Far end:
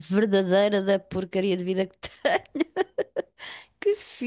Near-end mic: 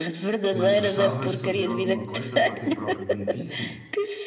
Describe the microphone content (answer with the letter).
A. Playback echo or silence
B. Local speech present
B